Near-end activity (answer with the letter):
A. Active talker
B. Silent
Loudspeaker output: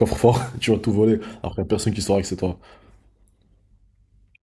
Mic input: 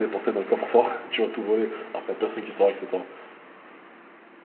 B